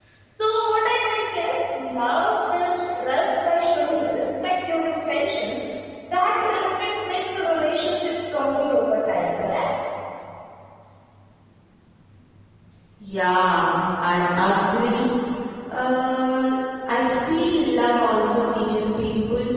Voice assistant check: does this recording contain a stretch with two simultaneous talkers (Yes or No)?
No